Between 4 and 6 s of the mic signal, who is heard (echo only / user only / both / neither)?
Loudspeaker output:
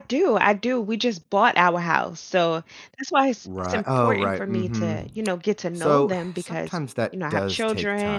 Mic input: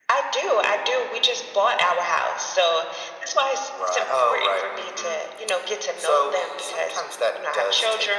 echo only